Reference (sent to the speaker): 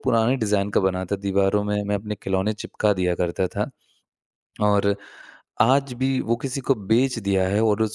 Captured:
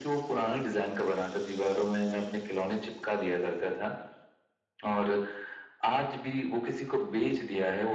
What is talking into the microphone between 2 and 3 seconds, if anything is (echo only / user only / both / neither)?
echo only